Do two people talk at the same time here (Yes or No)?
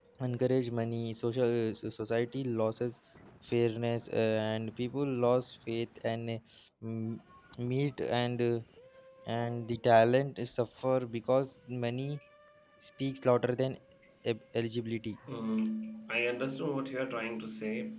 No